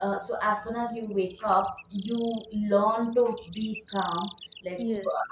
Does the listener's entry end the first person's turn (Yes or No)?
No